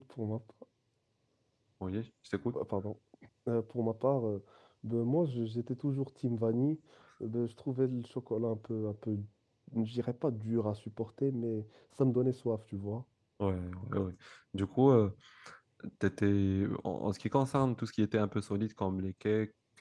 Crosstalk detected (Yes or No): No